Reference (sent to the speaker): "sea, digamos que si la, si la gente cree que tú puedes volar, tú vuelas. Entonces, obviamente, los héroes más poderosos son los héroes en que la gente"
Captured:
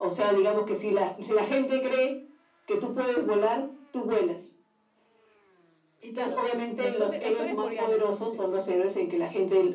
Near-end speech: present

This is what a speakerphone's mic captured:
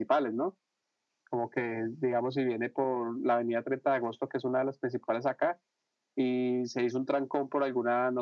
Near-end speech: none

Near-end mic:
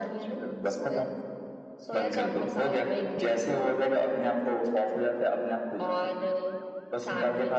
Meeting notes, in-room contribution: none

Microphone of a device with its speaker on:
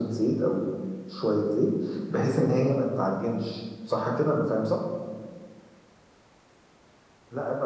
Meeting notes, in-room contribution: none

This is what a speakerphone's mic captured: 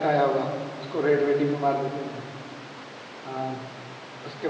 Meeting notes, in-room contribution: none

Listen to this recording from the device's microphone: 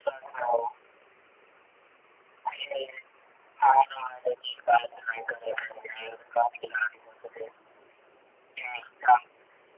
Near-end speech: none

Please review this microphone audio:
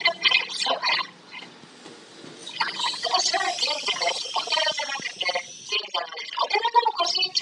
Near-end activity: none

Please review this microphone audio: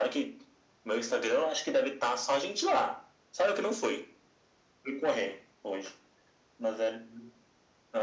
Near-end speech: none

